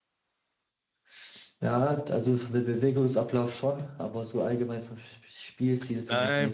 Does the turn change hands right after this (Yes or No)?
Yes